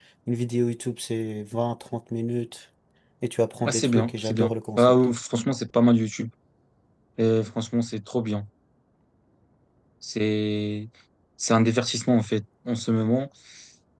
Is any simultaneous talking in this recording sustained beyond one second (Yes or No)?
Yes